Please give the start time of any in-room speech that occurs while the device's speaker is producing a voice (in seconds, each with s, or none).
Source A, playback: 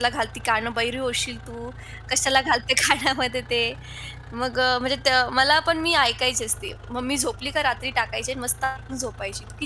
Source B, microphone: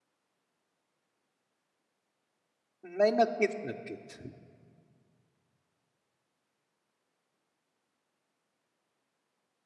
2.8 s